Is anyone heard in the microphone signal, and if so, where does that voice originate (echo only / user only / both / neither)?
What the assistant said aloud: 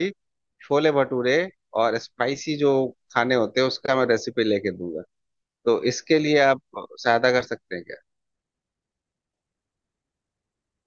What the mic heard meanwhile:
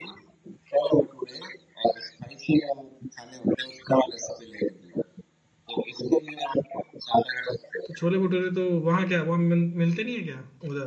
both